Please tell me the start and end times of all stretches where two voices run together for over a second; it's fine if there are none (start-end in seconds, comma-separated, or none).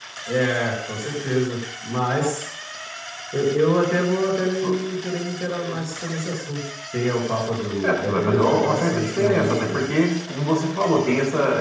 7.8-9.8